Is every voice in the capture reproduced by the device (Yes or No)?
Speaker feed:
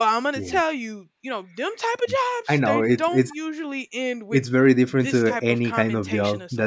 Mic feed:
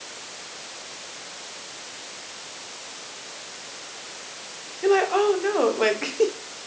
No